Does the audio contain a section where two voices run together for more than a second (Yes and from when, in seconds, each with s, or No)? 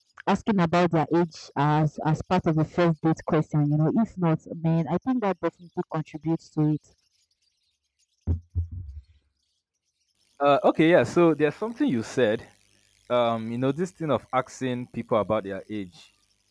No